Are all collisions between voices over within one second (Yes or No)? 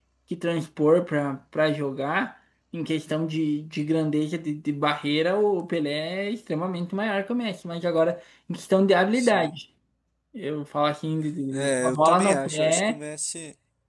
No